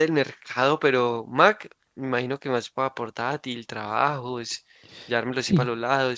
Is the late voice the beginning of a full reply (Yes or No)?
No